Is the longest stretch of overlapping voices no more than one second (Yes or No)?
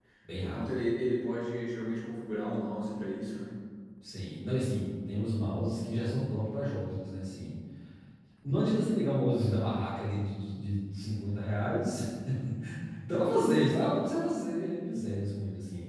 Yes